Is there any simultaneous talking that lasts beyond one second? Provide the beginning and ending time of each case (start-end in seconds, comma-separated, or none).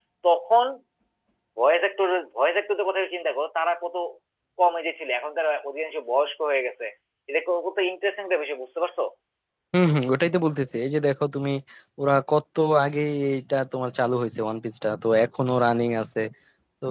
none